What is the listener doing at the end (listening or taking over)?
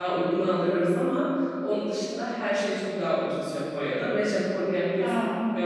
listening